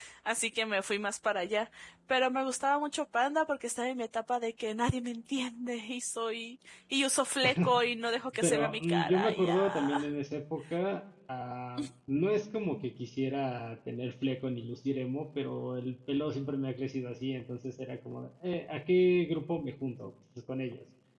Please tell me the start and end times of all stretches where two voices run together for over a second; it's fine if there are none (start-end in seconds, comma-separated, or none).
8.4-10.0